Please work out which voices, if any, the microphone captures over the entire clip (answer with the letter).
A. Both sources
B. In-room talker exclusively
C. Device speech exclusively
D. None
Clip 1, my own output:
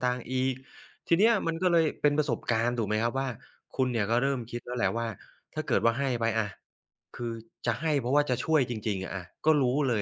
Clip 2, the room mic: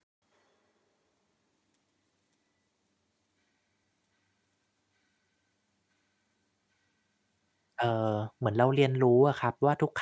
B